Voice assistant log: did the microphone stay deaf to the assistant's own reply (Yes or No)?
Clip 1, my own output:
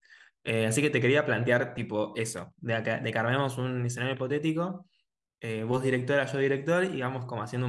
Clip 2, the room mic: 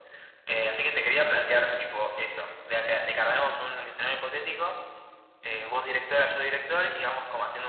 No